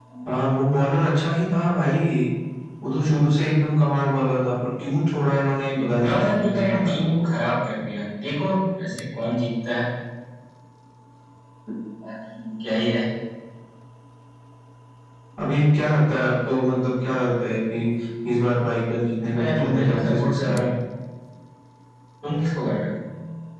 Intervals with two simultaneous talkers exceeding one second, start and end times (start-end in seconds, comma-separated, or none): 5.8-7.0, 19.2-20.6